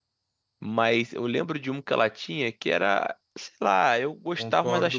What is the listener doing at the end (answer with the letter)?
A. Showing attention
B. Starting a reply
B